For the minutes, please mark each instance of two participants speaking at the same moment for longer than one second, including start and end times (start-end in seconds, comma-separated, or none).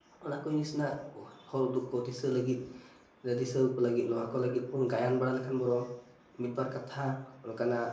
none